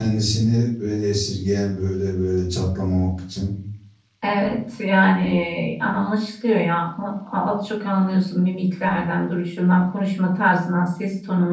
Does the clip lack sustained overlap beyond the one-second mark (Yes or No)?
Yes